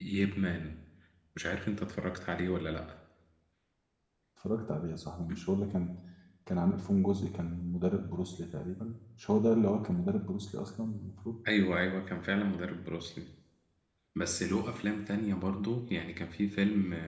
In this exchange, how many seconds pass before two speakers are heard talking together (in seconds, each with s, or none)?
none